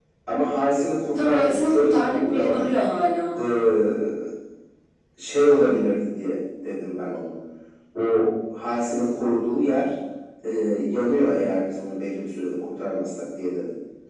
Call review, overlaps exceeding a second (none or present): present